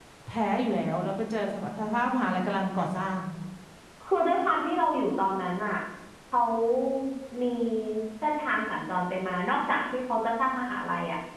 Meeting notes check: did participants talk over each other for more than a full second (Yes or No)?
No